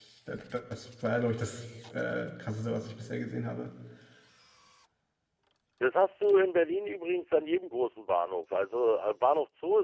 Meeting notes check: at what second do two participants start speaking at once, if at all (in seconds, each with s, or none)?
none